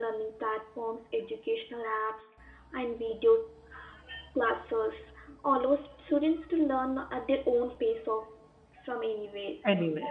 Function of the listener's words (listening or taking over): listening